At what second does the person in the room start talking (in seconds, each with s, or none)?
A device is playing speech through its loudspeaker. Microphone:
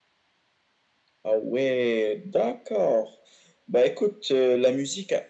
none